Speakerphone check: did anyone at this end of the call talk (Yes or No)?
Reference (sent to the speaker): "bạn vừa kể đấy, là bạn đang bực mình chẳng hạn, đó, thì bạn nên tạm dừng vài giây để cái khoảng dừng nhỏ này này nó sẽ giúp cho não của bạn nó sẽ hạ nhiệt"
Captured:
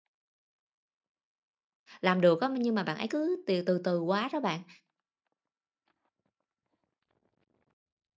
Yes